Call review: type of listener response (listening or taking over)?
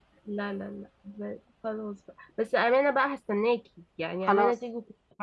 listening